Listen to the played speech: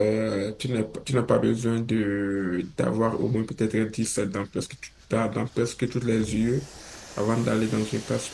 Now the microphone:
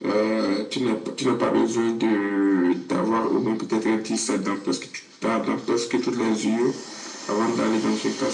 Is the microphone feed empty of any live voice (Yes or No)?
Yes